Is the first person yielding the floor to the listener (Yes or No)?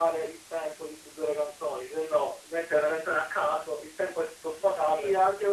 Yes